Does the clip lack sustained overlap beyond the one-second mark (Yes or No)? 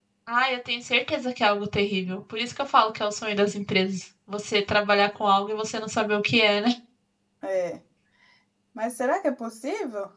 Yes